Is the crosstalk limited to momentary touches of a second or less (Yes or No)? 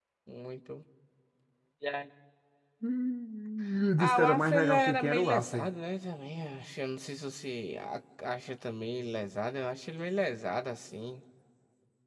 No